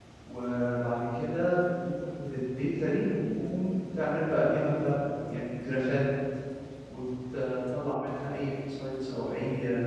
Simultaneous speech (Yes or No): No